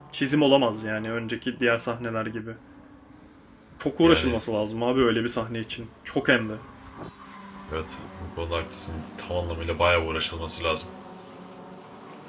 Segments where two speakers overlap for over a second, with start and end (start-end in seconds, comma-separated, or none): none